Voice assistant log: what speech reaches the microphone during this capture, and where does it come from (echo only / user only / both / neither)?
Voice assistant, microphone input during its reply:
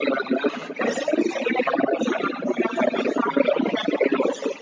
echo only